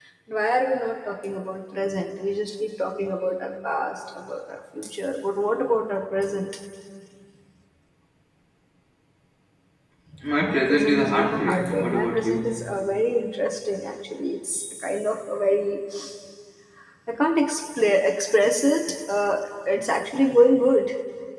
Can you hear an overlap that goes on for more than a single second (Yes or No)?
Yes